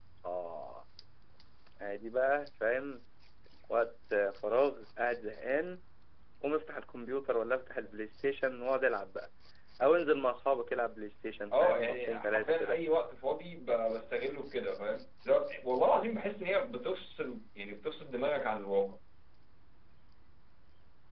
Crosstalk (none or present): present